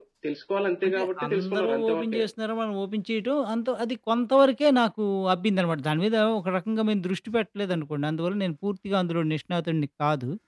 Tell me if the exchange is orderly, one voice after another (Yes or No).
No